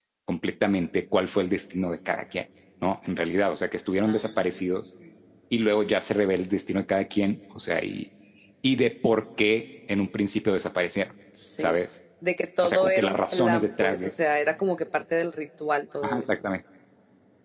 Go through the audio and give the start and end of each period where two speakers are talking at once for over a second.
12.6-14.1

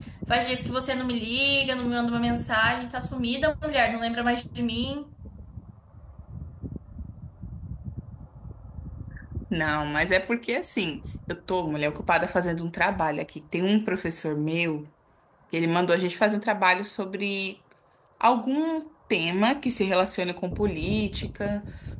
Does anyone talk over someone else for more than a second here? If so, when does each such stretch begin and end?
none

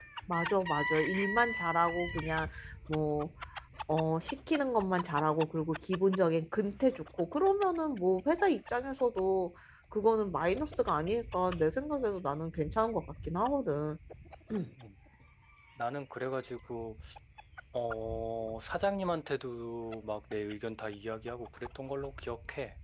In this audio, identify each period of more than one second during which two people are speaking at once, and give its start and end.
none

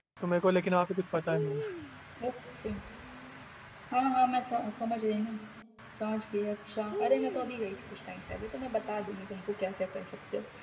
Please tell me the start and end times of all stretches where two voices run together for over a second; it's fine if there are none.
none

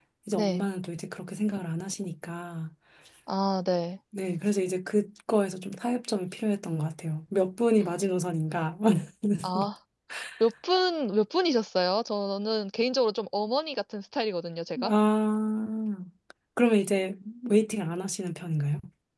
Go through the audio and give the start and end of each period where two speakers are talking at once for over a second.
none

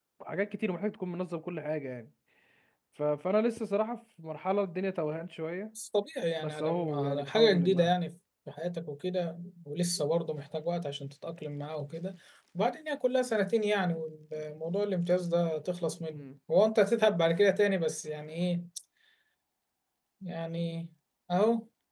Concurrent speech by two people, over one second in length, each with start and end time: 6.4-7.9

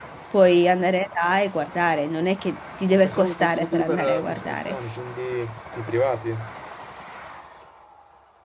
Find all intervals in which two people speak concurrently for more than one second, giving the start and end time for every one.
2.9-4.8

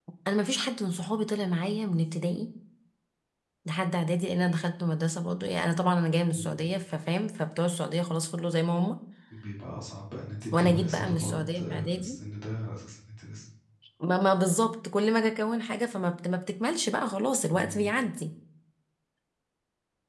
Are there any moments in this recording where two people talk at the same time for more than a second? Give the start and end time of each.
10.6-12.2

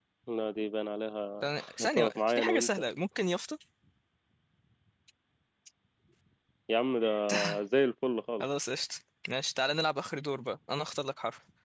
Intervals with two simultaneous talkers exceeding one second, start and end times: 1.4-2.7

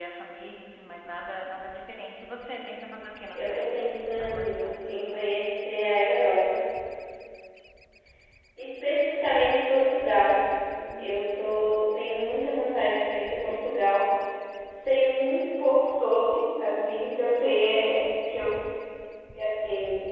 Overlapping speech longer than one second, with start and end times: 3.4-4.7

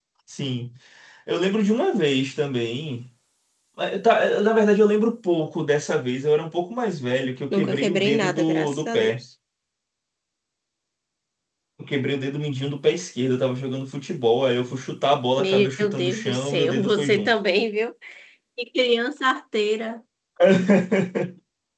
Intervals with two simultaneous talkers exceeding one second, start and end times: 7.5-9.2, 15.4-17.3

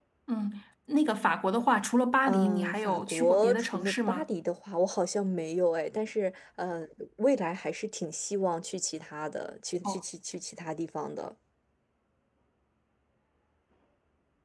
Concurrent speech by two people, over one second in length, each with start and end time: 2.2-4.2

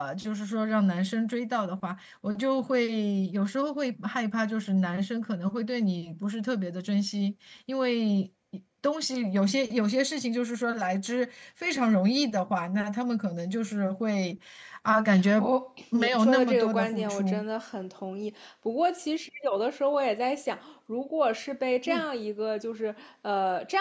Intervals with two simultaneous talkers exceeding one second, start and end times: 15.9-17.4

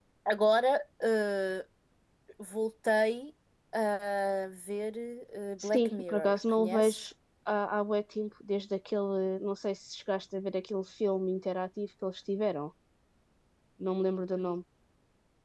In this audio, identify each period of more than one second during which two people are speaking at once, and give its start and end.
5.6-7.1

